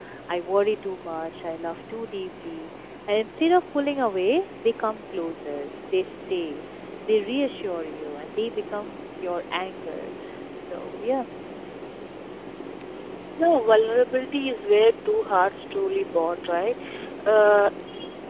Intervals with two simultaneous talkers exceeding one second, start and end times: none

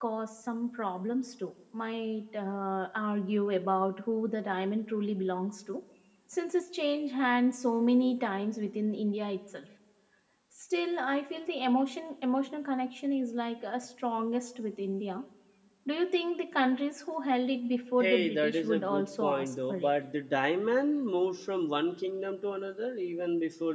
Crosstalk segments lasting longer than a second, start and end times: 18.0-19.9

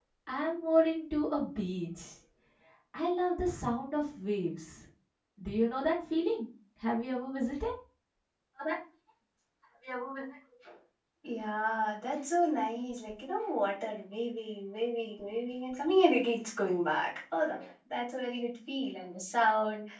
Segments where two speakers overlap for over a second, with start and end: none

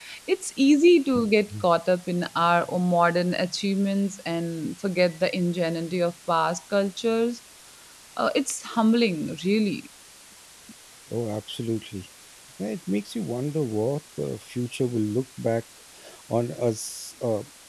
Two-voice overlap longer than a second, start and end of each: none

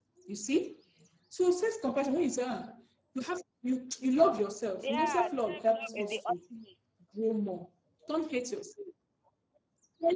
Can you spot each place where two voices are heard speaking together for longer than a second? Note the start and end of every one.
4.8-6.4

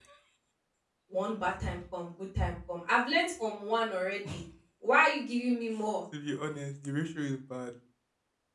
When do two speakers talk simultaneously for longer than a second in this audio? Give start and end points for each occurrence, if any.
none

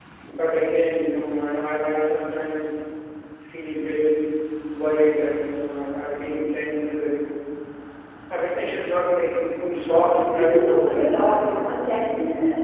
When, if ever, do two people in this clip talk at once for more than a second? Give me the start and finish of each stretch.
9.9-11.5

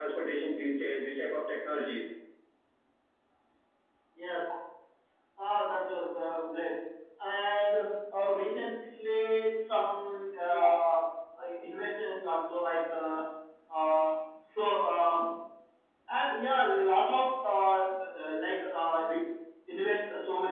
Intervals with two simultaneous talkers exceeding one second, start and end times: none

